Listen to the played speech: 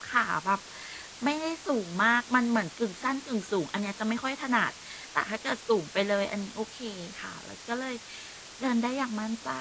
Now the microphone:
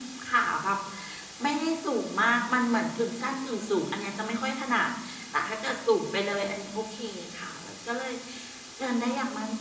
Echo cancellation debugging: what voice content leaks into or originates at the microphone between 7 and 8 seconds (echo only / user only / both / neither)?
echo only